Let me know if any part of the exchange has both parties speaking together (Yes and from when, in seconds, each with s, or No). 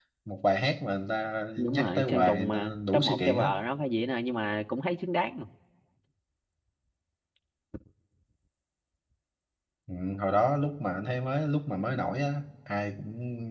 Yes, from 1.6 s